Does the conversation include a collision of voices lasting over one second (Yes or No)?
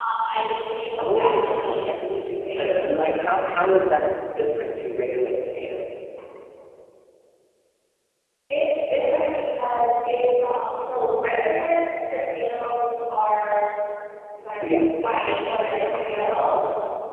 Yes